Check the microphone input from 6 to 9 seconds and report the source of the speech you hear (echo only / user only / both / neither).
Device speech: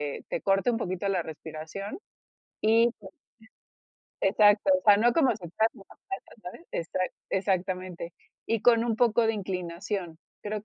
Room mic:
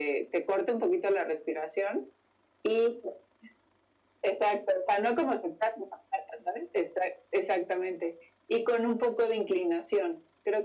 echo only